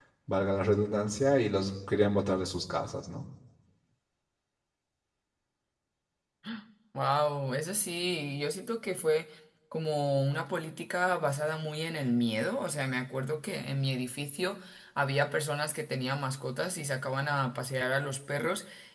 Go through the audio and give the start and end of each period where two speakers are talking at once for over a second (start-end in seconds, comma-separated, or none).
none